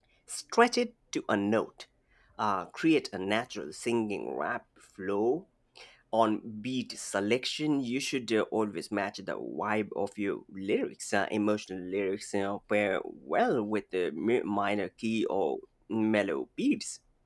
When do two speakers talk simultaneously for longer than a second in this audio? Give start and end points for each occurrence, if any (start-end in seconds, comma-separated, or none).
none